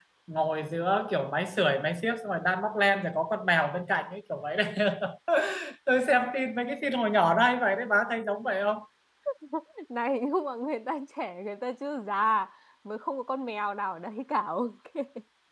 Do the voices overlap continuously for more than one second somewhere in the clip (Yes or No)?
No